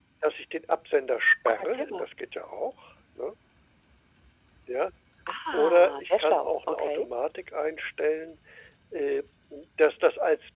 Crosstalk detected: Yes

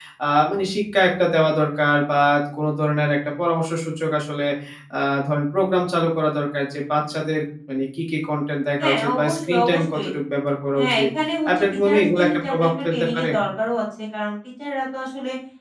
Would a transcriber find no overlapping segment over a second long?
No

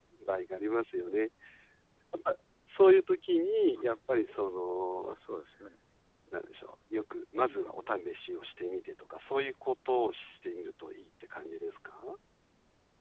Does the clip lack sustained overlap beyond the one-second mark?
Yes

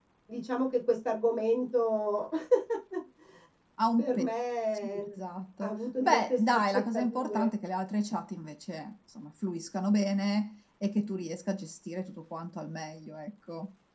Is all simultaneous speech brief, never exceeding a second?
No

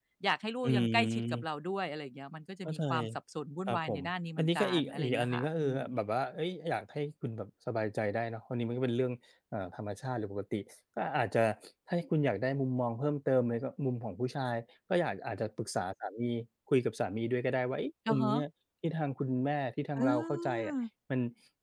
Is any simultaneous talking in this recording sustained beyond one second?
Yes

